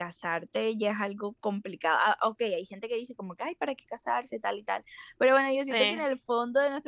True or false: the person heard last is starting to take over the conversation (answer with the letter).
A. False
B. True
A